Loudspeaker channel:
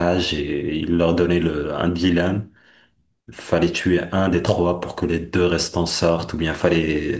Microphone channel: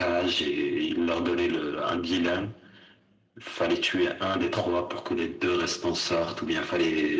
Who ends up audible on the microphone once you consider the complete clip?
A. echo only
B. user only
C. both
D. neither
A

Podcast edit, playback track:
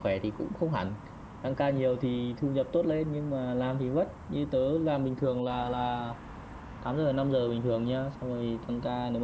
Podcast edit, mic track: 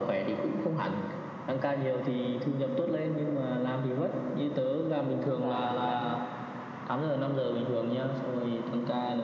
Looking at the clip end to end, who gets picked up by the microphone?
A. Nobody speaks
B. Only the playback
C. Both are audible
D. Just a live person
C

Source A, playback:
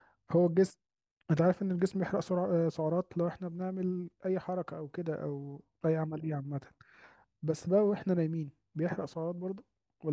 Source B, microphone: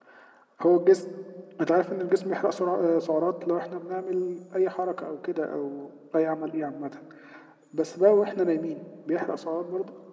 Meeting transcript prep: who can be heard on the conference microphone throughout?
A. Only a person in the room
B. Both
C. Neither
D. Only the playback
D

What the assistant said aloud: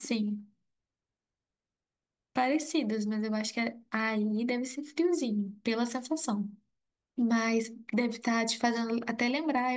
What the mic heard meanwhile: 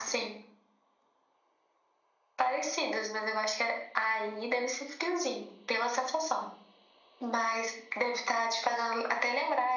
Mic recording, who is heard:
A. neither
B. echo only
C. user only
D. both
B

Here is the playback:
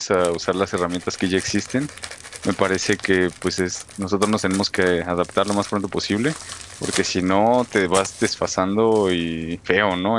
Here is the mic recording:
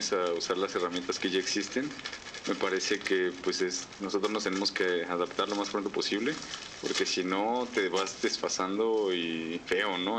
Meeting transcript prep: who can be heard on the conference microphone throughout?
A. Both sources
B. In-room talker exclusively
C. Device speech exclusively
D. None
C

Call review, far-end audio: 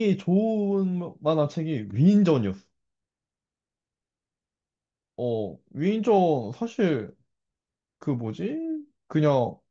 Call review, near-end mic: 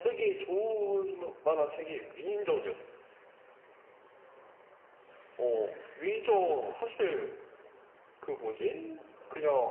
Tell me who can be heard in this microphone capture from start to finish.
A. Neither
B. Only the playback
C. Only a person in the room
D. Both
B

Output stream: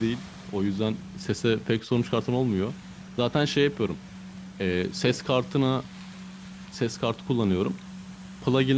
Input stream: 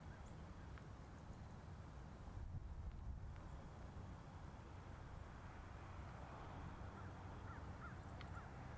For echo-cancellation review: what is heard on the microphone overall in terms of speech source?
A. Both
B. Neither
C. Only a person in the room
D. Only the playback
B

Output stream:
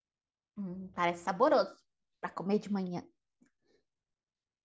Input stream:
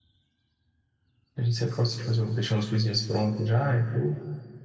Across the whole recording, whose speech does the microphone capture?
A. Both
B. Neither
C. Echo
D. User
D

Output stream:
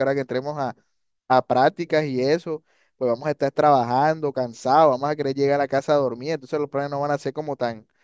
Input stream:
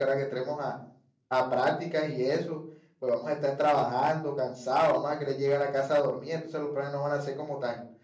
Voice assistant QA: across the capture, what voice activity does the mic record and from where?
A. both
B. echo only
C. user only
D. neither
B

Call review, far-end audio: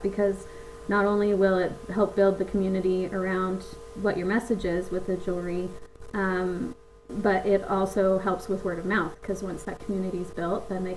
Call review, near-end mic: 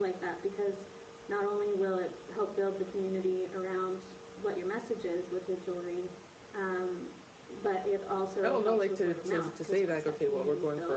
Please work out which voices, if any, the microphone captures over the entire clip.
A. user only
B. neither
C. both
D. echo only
C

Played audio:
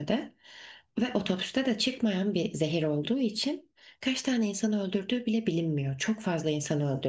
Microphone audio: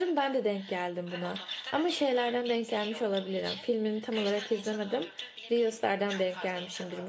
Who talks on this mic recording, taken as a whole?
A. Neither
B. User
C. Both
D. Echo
C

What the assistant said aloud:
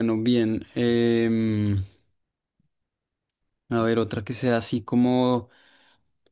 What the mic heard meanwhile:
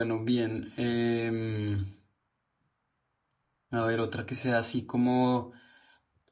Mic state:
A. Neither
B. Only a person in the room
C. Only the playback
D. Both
C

